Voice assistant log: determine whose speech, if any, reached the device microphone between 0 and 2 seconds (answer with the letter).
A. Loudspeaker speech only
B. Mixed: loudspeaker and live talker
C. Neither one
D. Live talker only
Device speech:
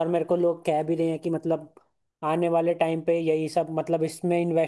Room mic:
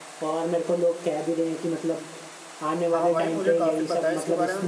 A